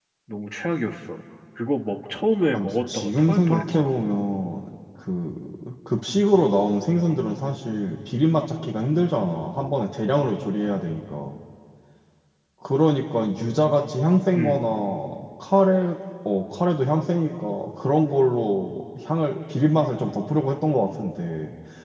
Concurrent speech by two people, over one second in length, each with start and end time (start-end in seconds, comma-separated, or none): 2.5-4.0